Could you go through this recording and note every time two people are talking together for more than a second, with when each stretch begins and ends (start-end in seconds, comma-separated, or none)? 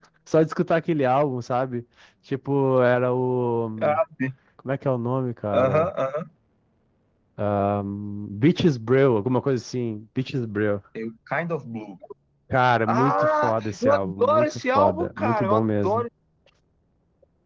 12.9-16.1